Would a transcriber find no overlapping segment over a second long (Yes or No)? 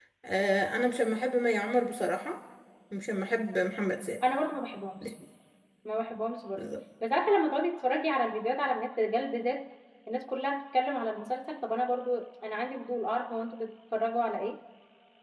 Yes